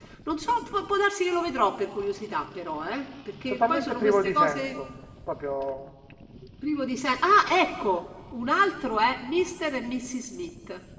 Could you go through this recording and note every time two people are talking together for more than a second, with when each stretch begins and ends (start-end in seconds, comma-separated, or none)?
3.5-4.8